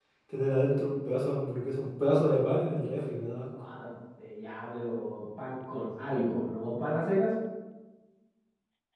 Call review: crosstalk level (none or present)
none